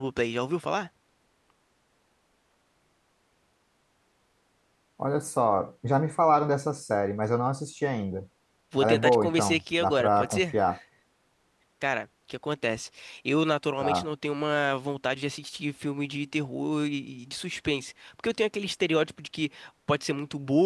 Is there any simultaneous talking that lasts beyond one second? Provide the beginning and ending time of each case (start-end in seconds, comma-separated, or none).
8.8-10.6